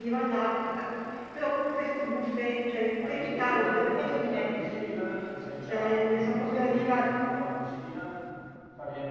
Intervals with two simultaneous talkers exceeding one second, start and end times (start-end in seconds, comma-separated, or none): 3.1-5.0, 5.6-7.1